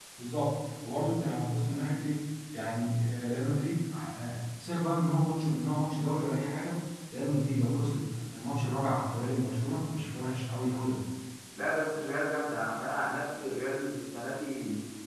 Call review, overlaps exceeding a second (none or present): none